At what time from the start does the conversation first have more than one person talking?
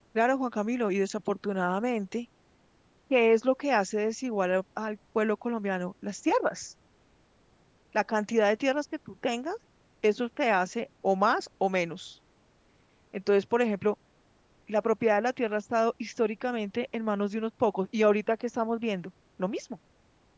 none

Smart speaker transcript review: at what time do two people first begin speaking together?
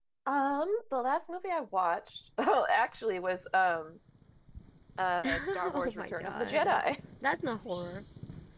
5.2 s

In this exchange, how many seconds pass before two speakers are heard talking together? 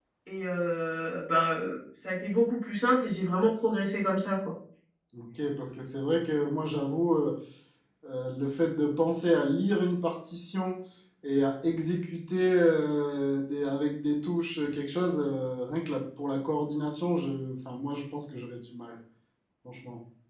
none

